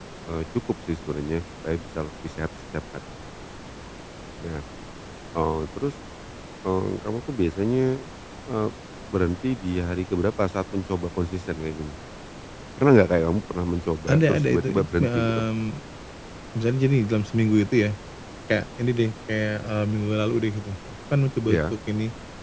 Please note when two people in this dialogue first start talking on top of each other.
14.1 s

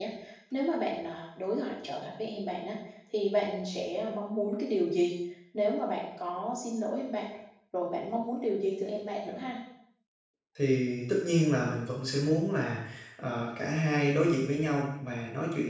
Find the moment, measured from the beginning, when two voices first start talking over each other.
none

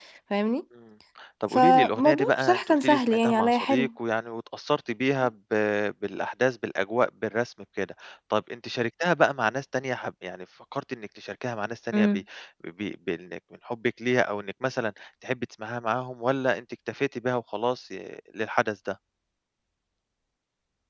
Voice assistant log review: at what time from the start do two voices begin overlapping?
1.5 s

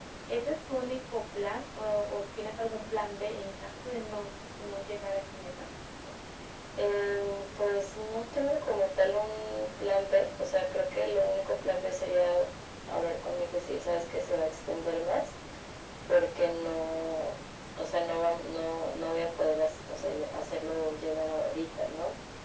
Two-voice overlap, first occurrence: none

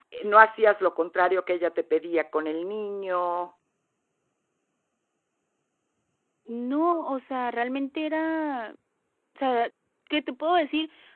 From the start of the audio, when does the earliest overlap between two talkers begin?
none

